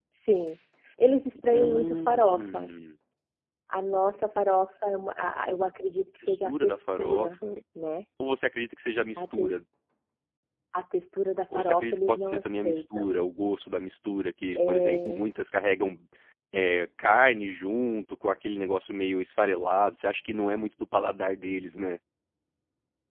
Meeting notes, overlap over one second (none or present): present